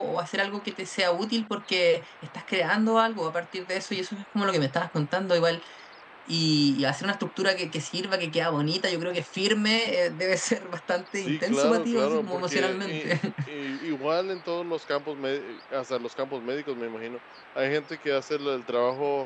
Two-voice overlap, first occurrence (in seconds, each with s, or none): 11.2 s